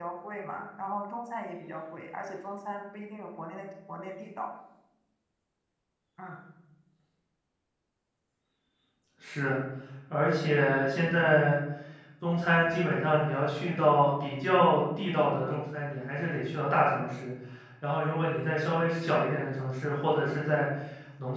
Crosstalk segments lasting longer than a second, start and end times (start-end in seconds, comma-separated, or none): none